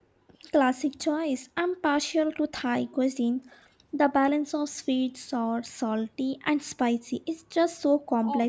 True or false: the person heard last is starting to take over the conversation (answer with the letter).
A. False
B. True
B